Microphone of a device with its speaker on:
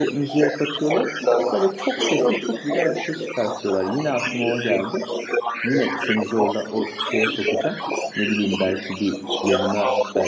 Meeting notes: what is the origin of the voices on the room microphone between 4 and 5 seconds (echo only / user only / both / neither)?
both